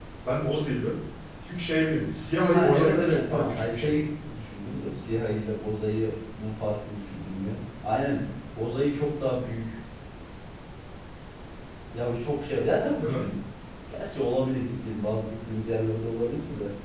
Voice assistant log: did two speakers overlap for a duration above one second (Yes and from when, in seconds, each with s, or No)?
Yes, from 2.5 s